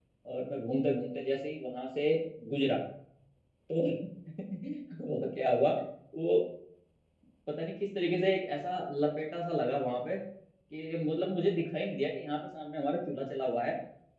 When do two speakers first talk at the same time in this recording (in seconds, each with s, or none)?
none